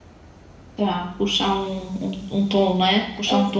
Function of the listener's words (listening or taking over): listening